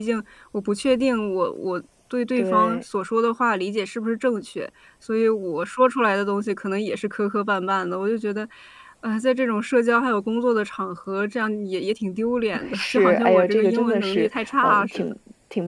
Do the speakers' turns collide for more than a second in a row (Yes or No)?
Yes